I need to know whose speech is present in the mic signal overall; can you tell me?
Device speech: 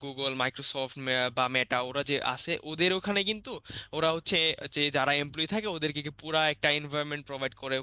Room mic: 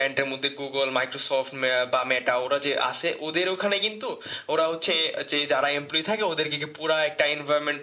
echo only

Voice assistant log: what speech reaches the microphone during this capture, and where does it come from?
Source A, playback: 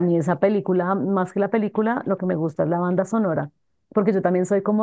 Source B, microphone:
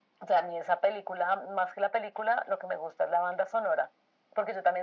echo only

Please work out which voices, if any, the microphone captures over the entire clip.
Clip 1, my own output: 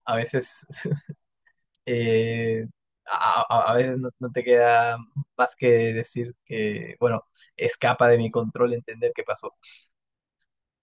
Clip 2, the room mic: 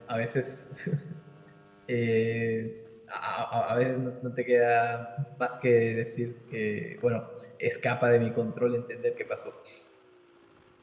echo only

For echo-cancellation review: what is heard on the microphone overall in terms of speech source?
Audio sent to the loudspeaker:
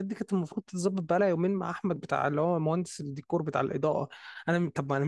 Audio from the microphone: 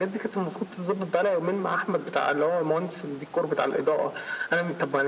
echo only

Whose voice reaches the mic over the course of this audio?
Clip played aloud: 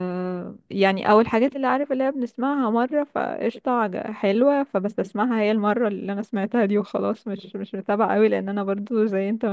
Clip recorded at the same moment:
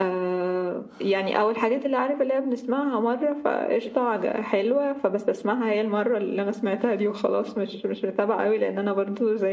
echo only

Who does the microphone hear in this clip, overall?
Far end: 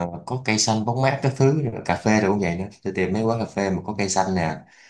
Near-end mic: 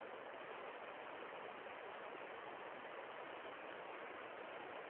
neither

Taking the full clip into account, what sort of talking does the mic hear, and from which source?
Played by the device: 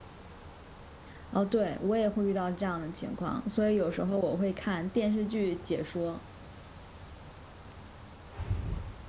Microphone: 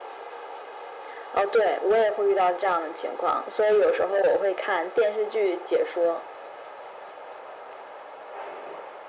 echo only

